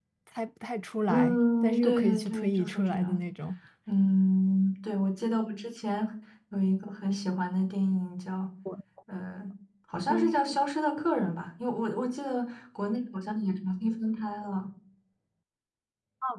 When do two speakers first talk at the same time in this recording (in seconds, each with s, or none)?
1.1 s